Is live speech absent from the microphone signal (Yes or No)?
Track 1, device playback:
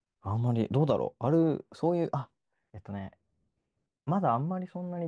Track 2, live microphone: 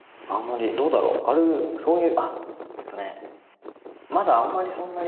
Yes